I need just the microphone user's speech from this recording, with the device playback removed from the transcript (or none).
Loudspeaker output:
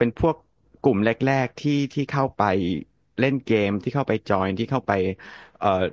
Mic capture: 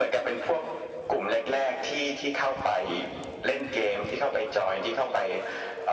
none